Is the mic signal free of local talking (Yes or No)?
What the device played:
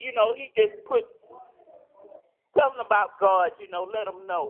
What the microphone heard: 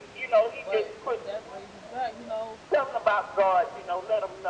No